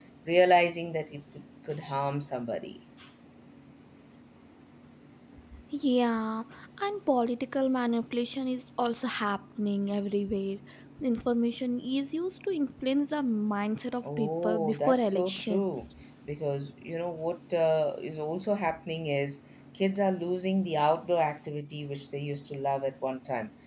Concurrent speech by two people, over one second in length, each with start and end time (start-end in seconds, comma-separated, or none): 14.2-15.9